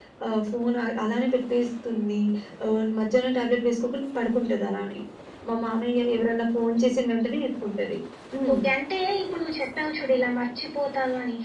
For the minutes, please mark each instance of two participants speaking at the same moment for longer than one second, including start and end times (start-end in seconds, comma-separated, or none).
none